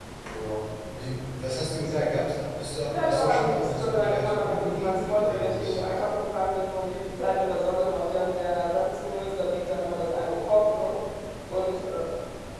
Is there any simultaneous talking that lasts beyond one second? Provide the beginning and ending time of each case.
2.9-5.8

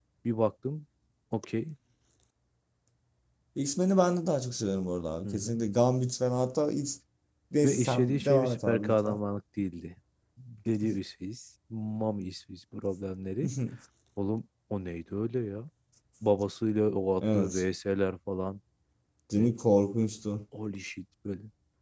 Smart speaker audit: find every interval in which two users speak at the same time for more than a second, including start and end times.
7.6-9.2

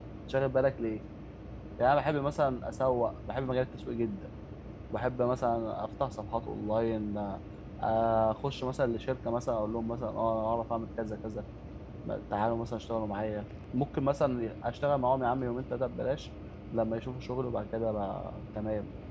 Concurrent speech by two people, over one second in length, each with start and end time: none

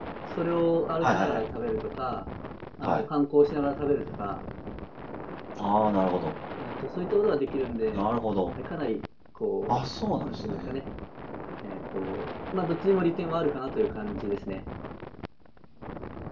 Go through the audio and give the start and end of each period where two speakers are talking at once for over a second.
none

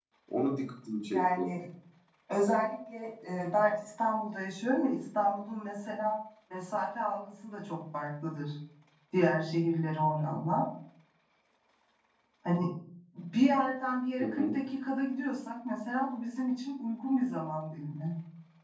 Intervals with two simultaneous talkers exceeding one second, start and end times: none

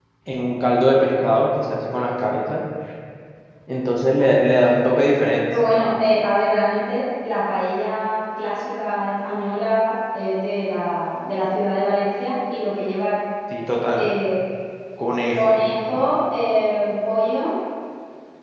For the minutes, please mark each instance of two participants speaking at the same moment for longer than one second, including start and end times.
none

